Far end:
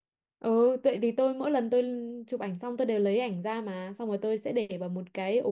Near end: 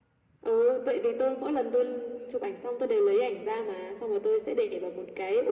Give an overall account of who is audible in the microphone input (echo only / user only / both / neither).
echo only